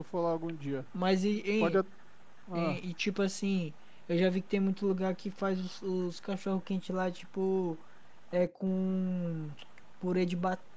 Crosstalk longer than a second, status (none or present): none